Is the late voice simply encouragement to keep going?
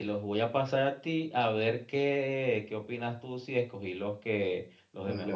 No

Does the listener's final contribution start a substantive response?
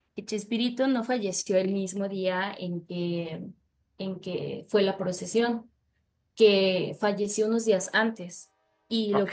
No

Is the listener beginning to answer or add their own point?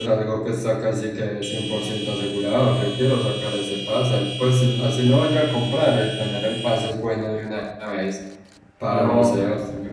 No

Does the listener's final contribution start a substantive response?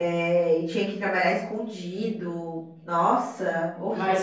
Yes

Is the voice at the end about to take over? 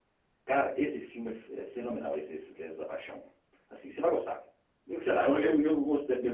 No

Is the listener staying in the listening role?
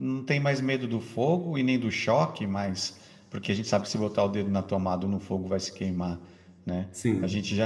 Yes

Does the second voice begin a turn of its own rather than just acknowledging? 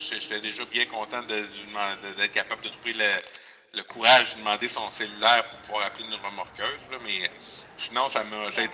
No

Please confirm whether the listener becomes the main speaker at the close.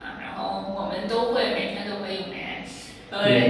Yes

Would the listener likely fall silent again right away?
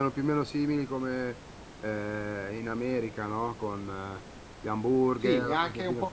No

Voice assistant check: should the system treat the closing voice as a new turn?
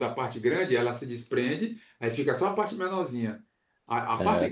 No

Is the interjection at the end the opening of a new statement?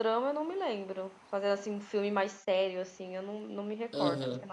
Yes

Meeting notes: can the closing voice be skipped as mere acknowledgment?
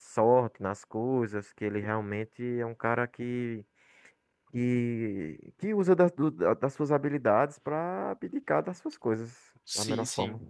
No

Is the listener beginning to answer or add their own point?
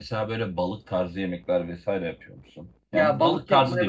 Yes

